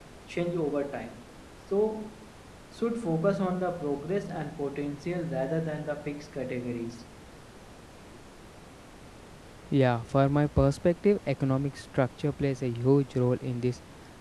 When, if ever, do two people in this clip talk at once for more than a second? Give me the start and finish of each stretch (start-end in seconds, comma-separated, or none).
none